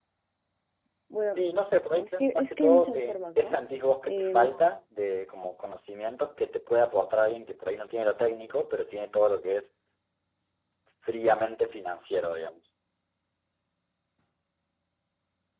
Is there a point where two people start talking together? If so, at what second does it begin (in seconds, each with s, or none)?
2.0 s